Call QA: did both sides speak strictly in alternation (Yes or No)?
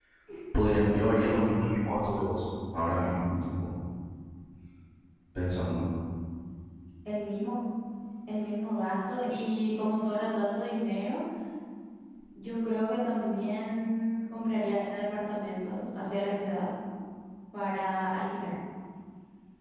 Yes